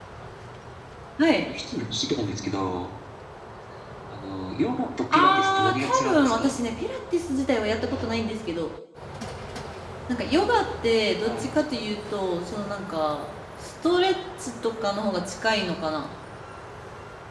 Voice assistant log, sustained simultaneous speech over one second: present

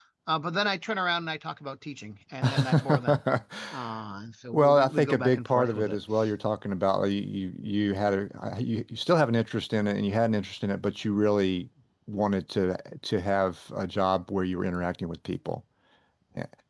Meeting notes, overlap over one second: present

